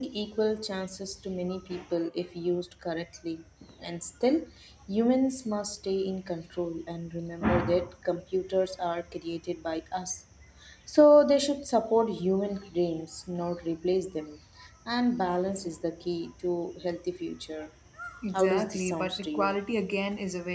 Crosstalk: present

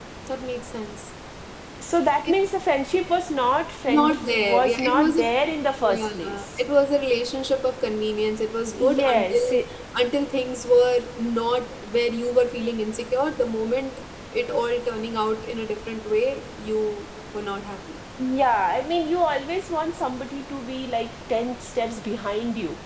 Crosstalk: present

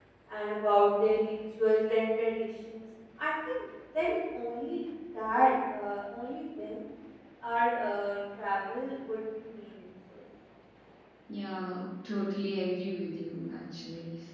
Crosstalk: none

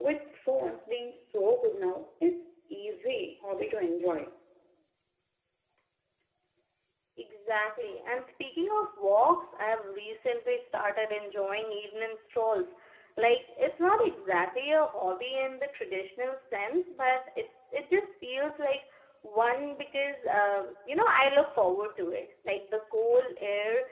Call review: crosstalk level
none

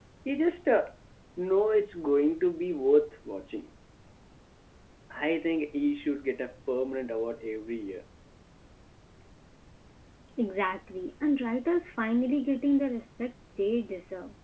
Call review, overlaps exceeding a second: none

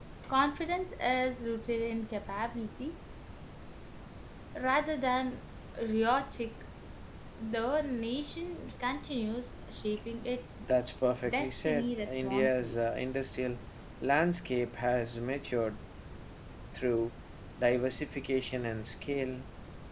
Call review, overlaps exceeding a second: present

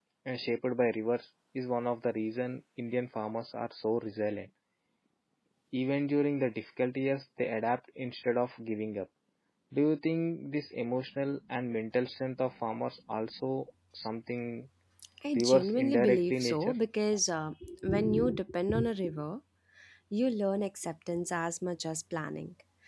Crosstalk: present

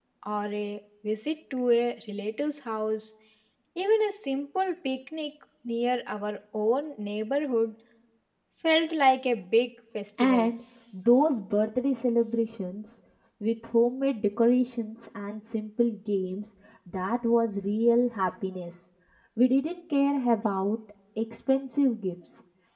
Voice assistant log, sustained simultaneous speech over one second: none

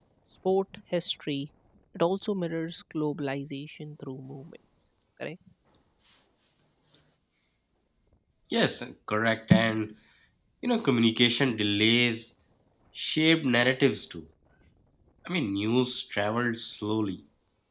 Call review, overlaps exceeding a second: none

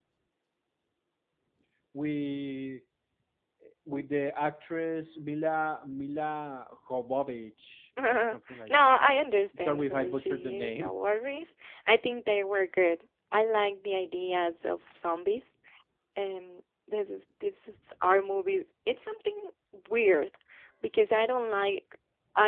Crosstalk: present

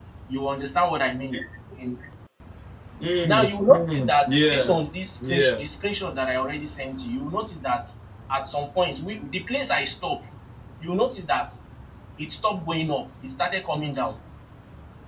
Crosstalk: present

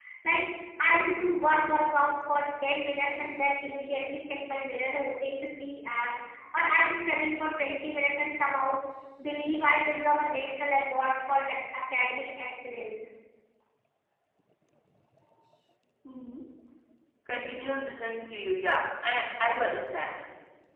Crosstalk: none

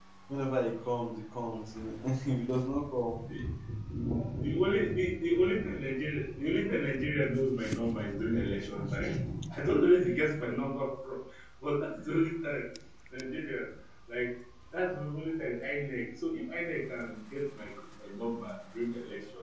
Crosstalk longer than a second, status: none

